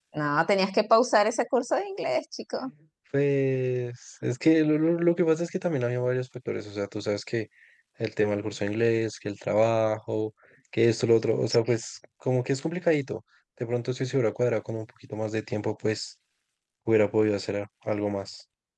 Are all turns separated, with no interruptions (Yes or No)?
Yes